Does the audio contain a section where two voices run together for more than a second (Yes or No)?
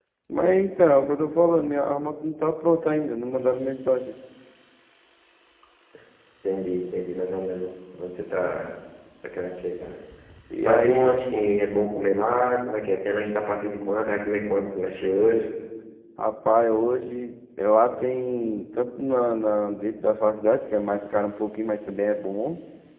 No